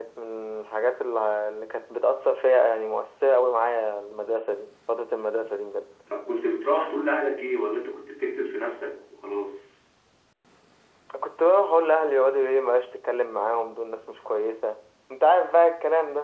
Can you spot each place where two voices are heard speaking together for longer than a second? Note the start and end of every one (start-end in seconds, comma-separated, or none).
none